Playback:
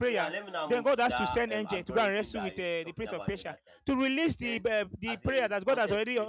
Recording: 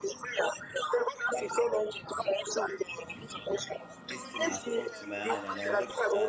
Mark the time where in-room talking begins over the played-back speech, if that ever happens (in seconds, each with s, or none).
4.0 s